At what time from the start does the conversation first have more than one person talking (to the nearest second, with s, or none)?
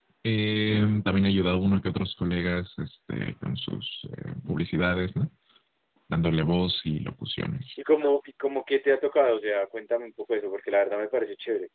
none